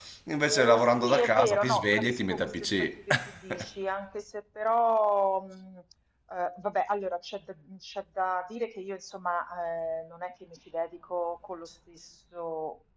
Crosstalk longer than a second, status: present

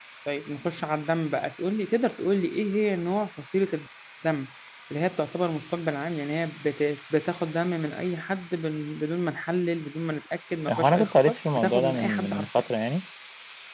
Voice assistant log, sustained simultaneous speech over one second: present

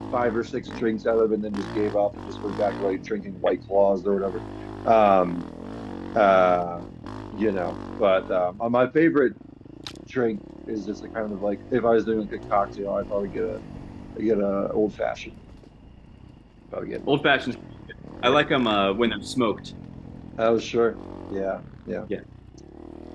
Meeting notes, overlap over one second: none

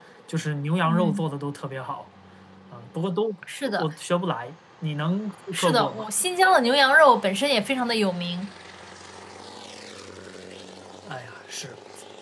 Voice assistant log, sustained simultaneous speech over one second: none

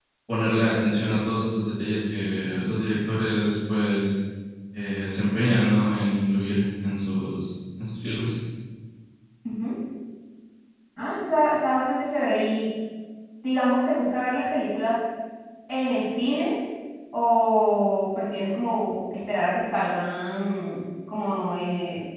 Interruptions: none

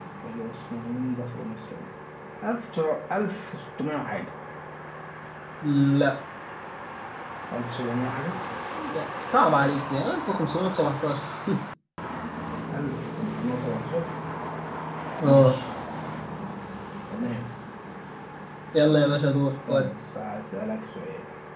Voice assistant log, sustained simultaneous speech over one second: none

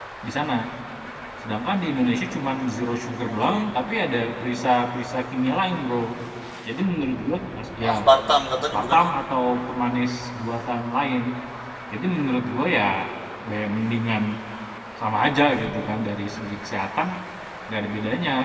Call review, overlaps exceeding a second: none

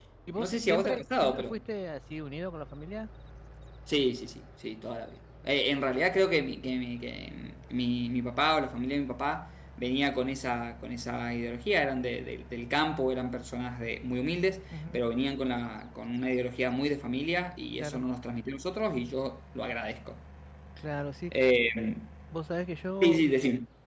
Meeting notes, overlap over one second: present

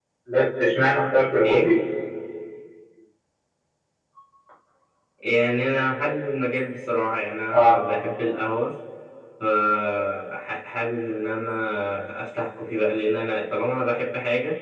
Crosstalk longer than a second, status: none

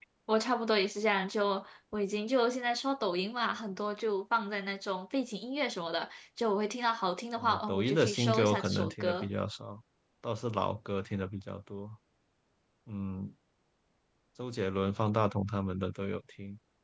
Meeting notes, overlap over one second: present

